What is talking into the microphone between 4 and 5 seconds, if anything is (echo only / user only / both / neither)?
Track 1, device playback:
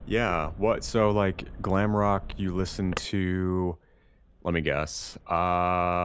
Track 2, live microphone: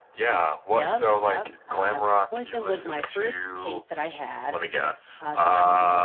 both